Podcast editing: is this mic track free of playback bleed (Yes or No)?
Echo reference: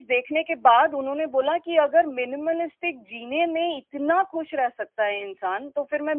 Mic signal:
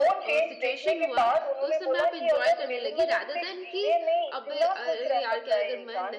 No